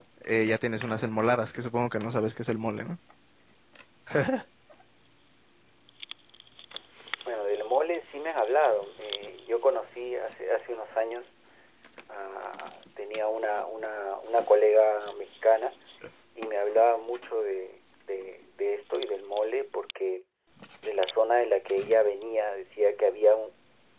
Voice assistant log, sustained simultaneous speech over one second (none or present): none